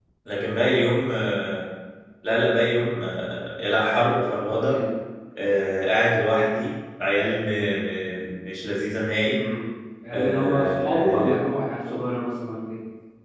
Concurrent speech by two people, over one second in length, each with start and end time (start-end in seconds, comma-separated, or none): 10.1-11.4